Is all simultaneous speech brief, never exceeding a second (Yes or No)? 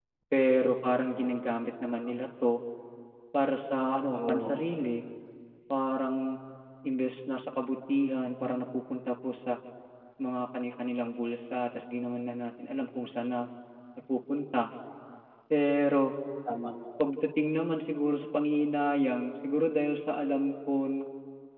Yes